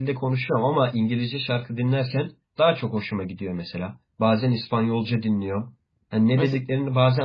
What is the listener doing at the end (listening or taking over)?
listening